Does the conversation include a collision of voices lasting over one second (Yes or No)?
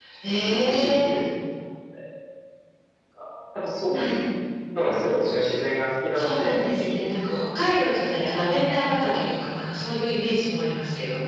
Yes